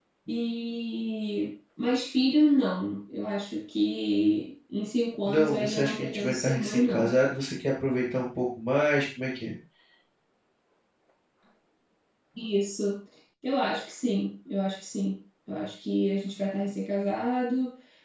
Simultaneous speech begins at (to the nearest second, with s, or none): 5 s